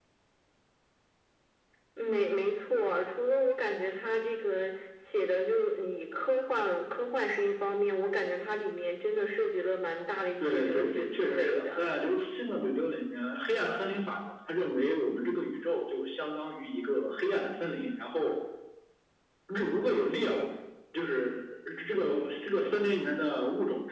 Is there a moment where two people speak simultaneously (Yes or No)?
Yes